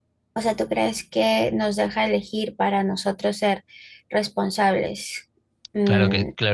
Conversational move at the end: taking over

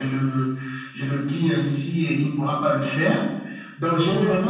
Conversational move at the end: listening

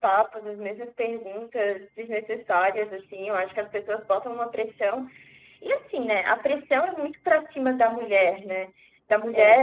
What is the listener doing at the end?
listening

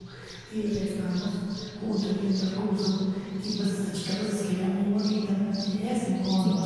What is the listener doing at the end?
listening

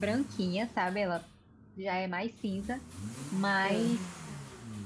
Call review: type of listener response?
listening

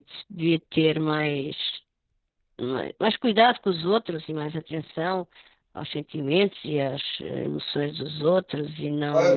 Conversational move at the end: taking over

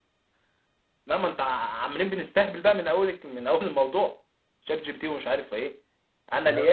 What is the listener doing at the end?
taking over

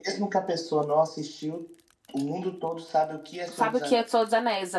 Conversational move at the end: taking over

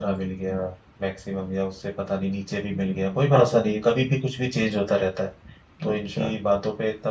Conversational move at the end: listening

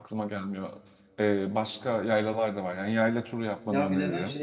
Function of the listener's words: taking over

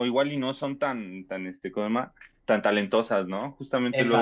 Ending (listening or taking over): listening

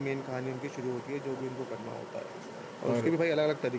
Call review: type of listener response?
listening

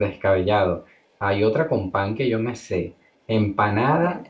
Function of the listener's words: listening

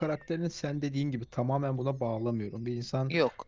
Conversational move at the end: listening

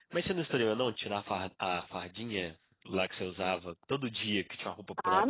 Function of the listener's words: taking over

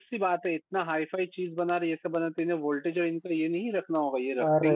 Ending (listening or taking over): listening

